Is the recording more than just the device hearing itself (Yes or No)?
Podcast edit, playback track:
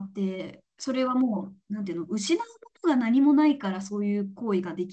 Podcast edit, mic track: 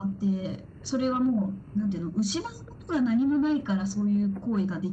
No